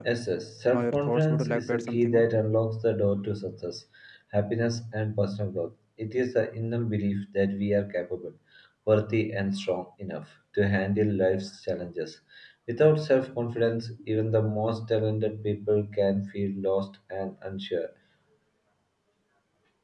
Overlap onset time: 1 s

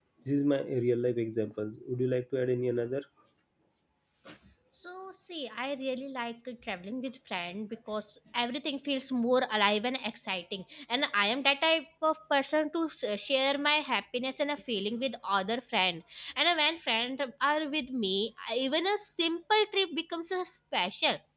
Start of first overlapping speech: none

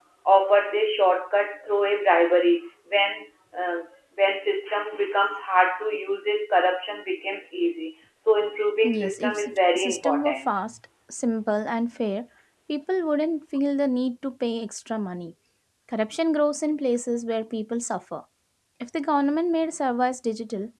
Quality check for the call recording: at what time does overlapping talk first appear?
9 s

